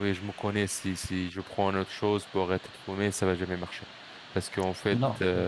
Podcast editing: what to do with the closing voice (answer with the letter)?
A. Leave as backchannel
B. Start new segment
A